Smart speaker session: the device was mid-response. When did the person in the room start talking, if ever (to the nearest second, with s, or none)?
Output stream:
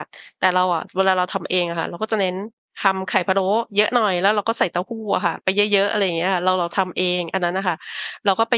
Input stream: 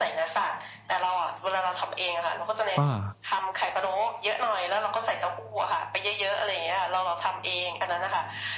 3 s